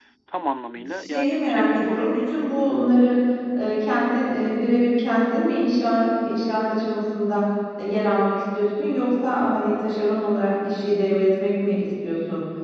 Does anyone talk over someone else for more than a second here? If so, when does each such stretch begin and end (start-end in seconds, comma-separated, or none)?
0.9-2.6